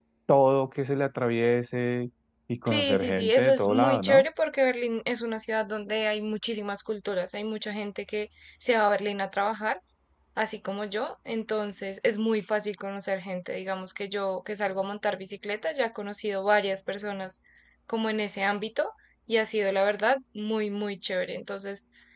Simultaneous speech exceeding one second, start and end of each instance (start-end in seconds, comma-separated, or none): 2.7-4.2